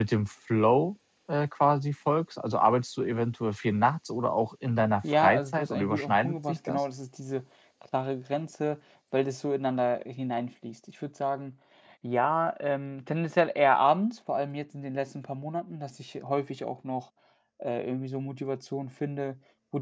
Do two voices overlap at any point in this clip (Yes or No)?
Yes